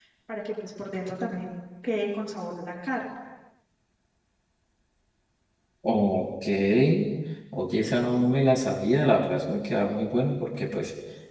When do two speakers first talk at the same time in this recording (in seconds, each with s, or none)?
none